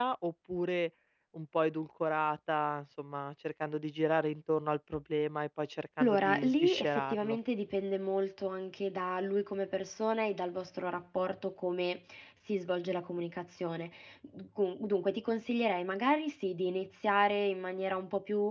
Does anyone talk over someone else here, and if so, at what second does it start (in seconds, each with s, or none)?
6.0 s